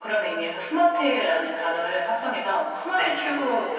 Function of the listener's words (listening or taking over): listening